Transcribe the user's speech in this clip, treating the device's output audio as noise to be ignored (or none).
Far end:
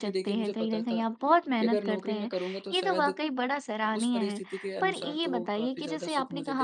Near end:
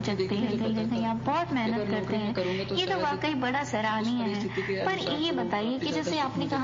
बिल्कुल